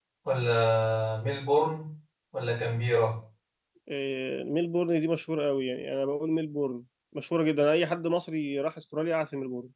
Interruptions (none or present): none